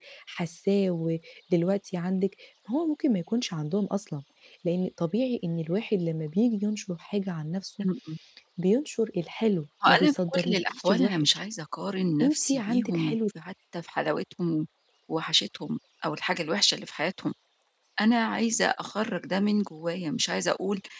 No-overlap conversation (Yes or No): No